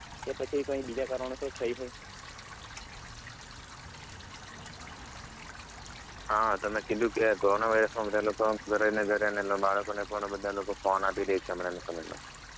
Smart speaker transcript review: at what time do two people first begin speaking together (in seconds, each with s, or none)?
none